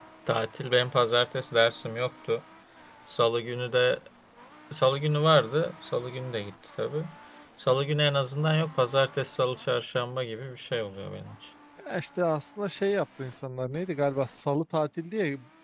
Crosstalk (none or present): none